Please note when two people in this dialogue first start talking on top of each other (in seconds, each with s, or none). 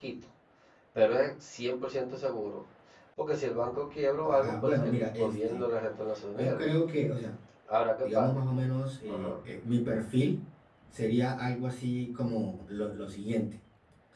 4.3 s